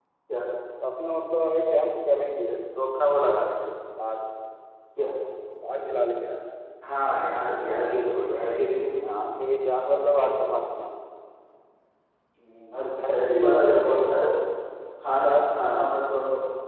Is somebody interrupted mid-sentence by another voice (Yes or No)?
Yes